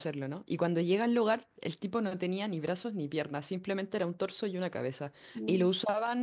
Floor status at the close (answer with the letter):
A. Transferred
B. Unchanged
B